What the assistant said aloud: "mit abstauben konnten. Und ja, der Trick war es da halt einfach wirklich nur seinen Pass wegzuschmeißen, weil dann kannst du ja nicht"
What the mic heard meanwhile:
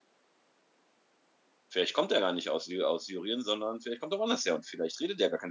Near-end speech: present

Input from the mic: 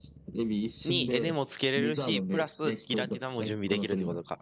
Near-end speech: present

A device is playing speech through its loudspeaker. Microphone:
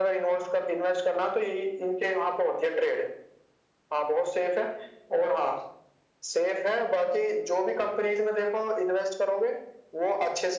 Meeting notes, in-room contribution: none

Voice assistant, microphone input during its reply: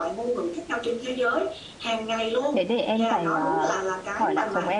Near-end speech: present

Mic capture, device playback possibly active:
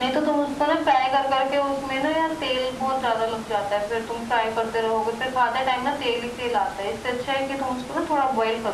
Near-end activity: none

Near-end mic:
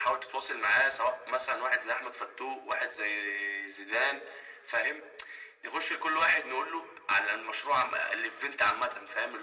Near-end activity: none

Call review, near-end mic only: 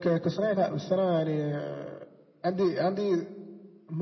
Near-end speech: none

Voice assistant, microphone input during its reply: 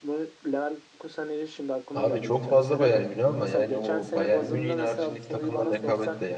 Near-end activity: present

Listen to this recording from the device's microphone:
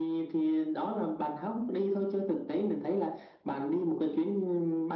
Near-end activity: none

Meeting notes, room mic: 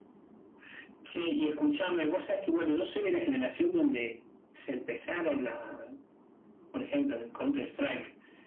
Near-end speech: none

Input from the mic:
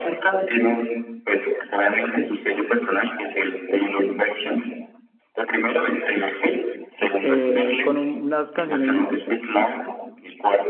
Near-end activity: present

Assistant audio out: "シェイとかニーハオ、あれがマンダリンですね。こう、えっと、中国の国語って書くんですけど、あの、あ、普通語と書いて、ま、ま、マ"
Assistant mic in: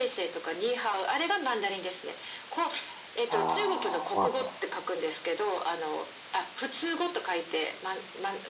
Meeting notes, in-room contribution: present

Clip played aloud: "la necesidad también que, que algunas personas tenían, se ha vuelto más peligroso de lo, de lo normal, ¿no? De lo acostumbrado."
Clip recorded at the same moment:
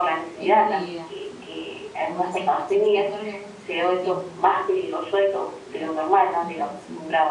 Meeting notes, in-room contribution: present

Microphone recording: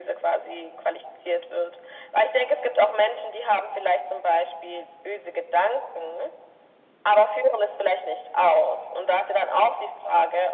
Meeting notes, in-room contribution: none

